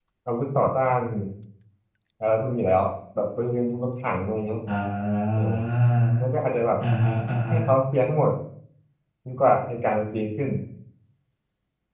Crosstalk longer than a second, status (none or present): none